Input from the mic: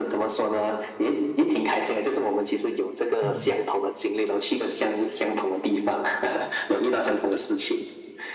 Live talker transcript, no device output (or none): 嗯，